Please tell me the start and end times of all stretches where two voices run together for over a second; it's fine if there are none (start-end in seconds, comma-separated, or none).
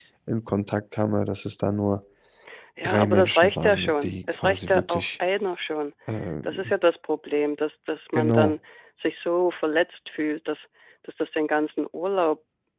2.8-5.1